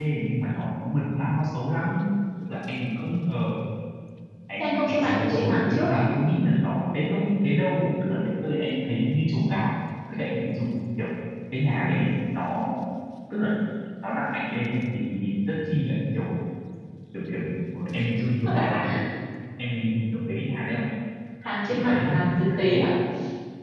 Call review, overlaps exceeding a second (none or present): present